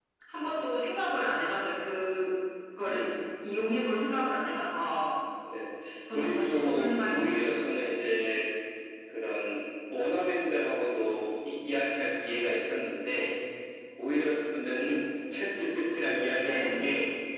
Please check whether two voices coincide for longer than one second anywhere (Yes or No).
Yes